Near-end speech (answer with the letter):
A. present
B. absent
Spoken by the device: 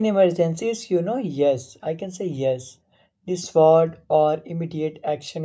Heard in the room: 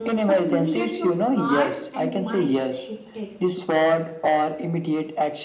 A